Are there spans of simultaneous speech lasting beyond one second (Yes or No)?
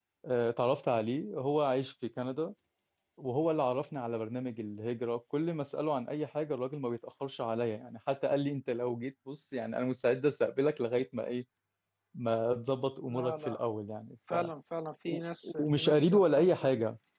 Yes